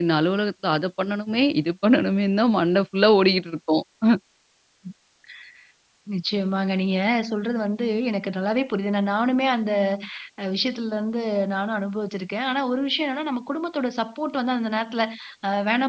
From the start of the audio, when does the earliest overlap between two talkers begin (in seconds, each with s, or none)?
none